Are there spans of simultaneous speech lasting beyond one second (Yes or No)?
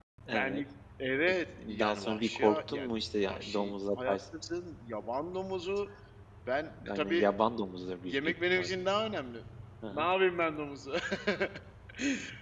Yes